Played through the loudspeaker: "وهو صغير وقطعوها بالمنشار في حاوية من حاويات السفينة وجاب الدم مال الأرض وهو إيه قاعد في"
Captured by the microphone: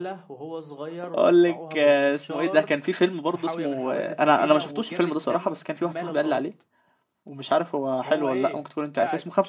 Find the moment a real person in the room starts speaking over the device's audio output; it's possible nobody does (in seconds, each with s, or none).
1.0 s